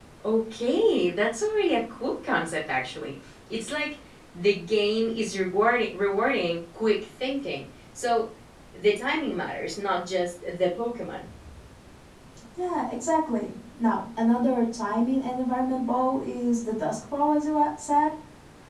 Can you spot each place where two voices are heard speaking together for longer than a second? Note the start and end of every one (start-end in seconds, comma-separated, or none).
none